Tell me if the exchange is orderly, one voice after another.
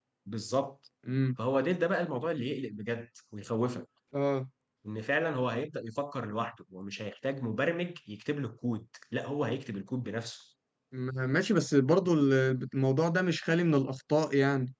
Yes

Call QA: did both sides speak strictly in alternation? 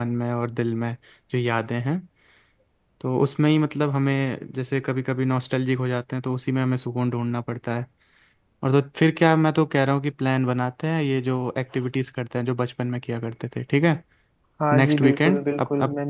No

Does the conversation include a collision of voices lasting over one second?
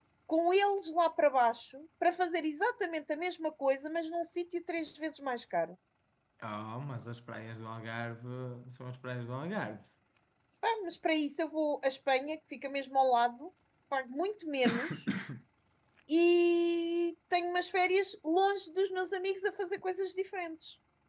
No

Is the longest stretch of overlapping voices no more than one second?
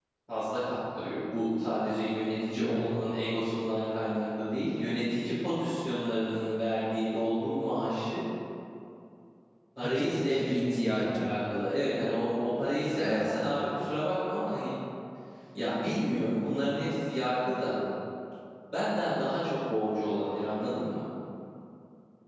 No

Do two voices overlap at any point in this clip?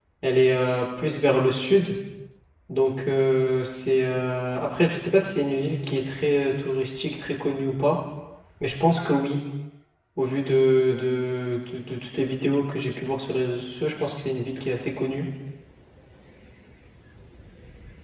No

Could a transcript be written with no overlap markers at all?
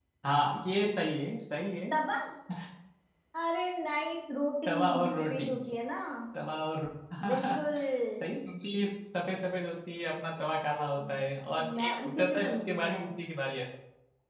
No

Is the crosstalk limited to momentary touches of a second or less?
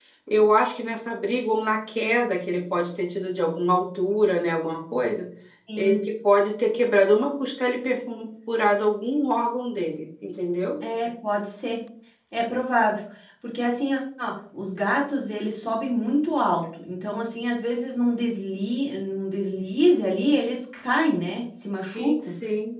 Yes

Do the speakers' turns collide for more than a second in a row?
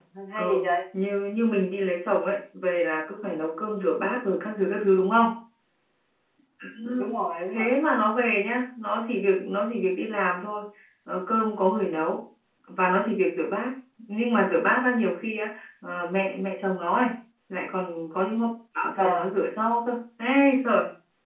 No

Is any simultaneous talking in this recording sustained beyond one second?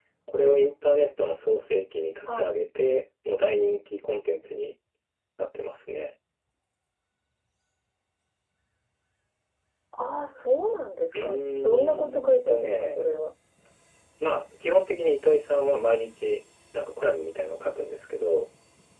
Yes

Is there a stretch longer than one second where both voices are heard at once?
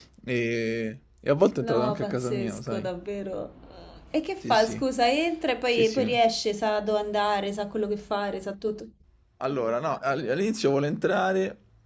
Yes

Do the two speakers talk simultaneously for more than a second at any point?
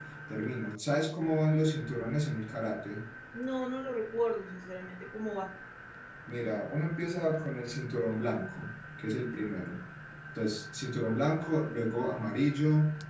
No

